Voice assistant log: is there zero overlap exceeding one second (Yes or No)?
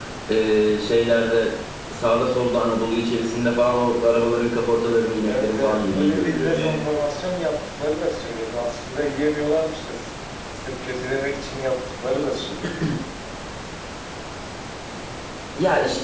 No